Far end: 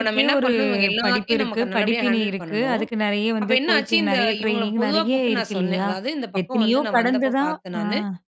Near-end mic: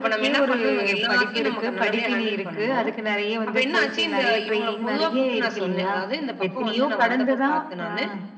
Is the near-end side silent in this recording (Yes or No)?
Yes